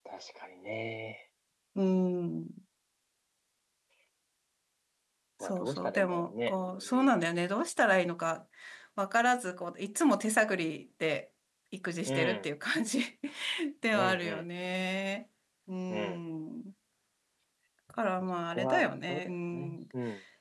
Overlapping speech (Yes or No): Yes